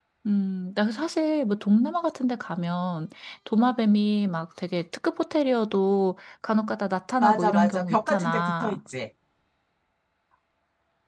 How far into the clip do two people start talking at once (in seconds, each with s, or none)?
7.2 s